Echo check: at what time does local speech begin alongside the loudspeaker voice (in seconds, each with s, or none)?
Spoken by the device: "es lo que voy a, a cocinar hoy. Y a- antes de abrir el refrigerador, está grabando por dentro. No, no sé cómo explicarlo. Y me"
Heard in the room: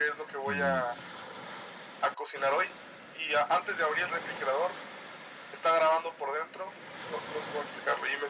0.4 s